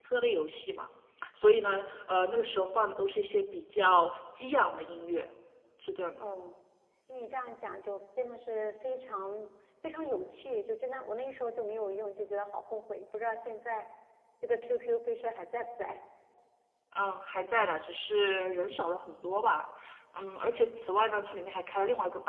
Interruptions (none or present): none